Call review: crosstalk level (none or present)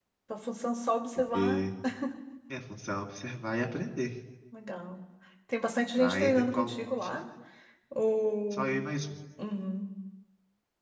present